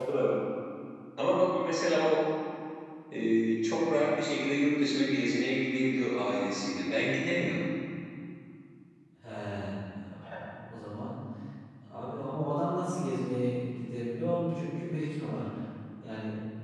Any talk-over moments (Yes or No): No